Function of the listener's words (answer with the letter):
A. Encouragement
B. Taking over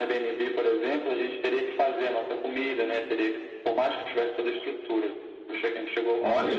B